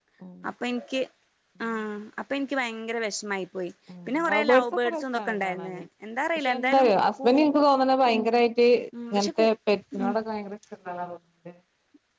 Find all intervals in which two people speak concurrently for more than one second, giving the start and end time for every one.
4.1-5.8

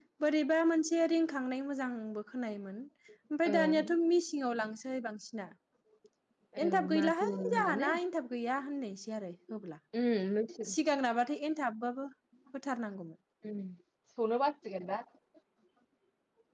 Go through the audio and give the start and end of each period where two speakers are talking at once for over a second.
6.6-7.9

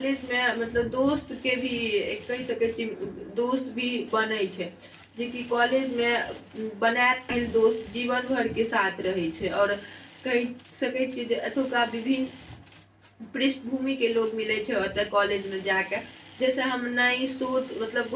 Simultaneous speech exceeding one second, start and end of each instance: none

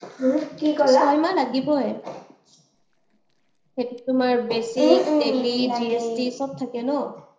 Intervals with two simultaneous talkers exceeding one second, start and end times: 4.8-6.1

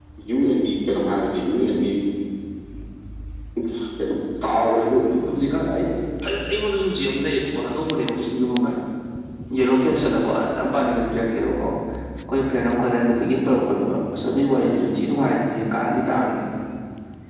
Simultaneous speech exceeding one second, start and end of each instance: none

